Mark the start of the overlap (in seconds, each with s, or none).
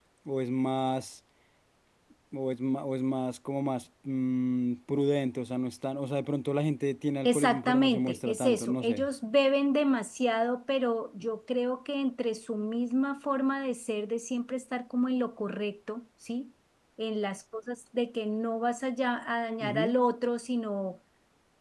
7.2 s